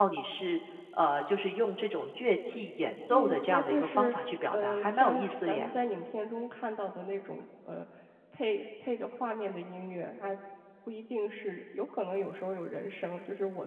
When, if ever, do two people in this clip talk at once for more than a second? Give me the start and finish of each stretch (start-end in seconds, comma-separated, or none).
3.1-5.7